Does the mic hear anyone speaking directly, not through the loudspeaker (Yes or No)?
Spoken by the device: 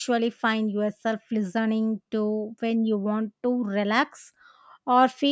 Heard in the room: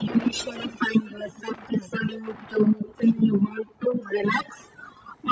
No